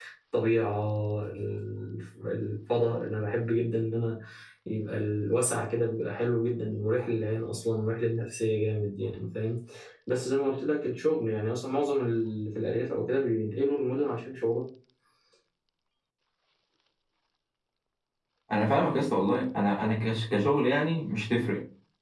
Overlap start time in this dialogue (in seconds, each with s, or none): none